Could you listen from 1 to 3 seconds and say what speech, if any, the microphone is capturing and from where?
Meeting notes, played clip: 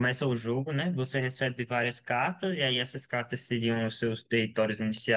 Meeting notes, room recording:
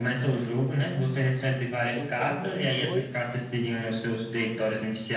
both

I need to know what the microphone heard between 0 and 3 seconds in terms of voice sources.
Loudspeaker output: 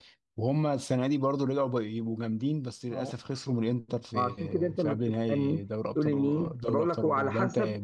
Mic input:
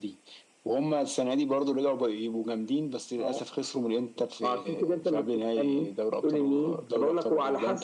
echo only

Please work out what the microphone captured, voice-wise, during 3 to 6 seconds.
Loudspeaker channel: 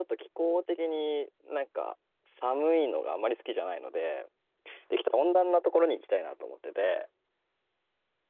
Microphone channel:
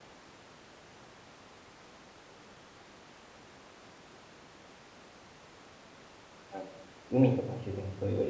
neither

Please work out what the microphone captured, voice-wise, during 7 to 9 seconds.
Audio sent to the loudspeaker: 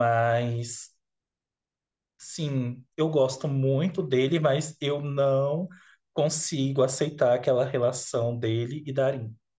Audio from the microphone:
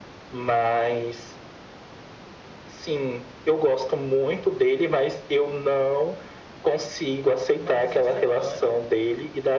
both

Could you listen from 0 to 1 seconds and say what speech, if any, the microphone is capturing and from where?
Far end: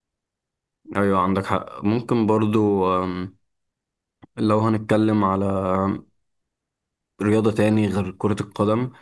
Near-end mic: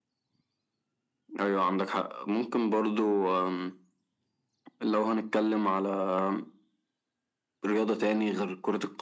neither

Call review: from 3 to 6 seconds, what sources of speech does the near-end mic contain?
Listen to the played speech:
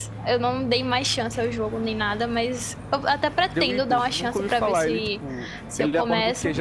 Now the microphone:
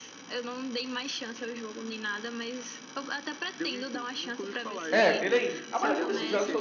both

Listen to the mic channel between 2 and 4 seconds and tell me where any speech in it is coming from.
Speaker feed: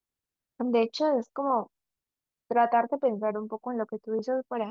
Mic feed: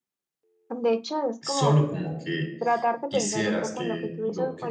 both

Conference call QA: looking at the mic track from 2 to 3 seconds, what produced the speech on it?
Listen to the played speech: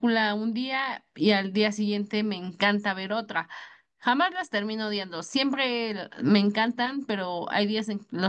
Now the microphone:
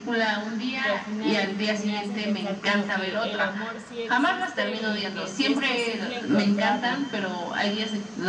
both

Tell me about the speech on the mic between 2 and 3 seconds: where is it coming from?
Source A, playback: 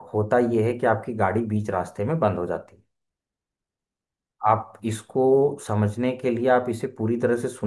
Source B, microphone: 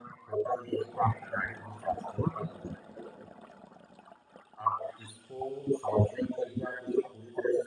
echo only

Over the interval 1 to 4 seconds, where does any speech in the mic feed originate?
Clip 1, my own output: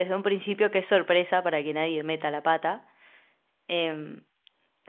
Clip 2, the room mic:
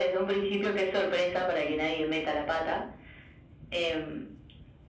echo only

